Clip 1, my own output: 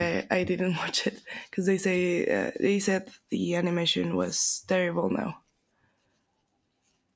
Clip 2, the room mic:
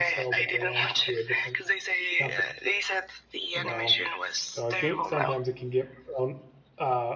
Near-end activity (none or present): present